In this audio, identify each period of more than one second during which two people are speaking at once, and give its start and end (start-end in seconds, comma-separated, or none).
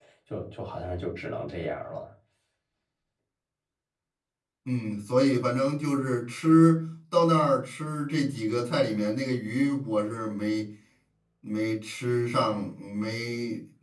none